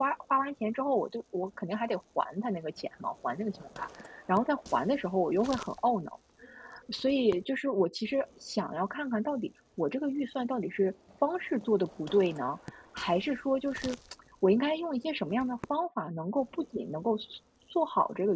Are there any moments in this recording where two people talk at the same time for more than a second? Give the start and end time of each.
none

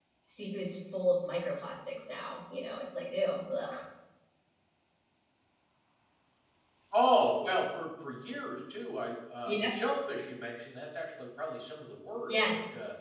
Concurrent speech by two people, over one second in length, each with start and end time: none

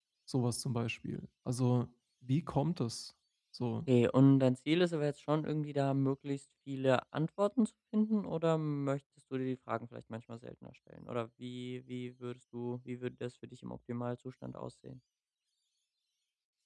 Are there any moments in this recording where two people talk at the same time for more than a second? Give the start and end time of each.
none

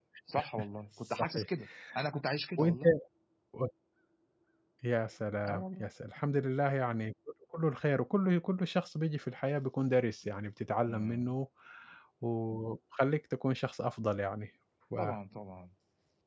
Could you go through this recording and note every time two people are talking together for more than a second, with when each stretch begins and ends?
none

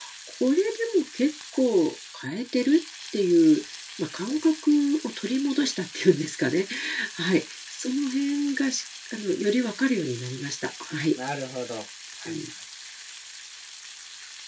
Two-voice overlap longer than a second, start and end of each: none

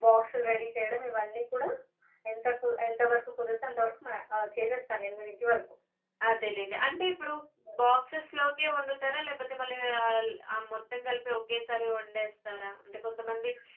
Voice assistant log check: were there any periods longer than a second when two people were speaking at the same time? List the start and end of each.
none

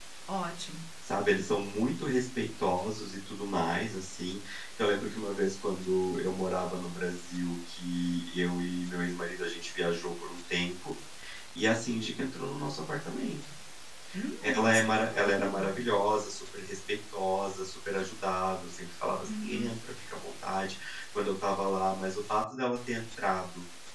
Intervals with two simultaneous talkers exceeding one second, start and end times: 14.6-15.8

